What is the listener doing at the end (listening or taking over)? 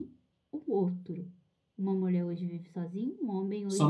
taking over